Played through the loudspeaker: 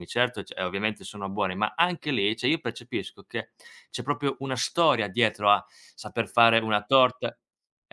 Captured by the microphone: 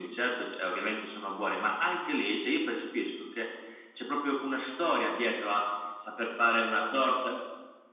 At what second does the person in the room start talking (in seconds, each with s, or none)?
none